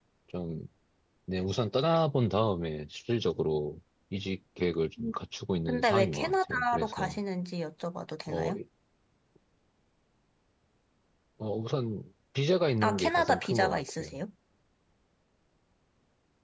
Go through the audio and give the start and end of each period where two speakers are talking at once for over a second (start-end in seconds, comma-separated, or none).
5.7-7.2, 12.8-14.1